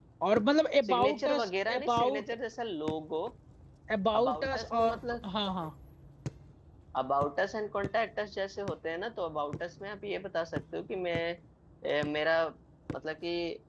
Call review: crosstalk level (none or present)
present